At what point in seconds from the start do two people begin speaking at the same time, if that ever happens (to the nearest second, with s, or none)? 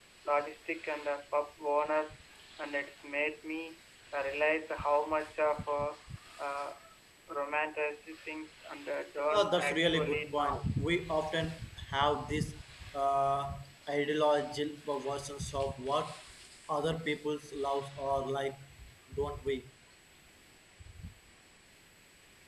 9 s